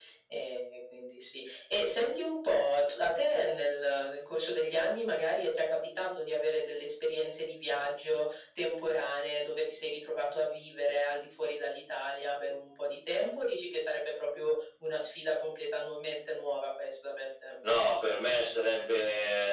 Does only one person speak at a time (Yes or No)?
Yes